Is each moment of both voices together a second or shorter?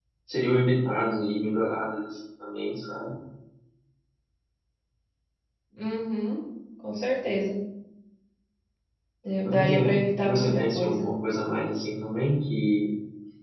No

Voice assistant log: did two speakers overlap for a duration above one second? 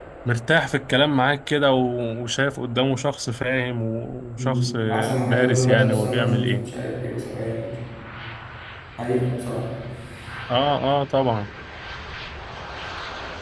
Yes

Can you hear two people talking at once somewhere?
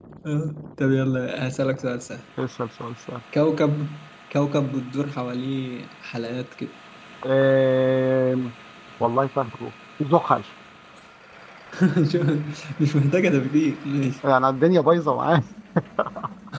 No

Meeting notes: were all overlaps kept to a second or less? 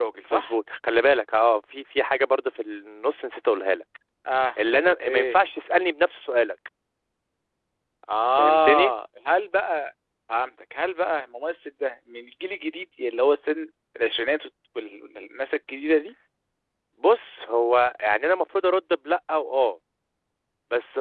Yes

